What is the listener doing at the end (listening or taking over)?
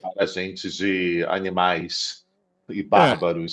taking over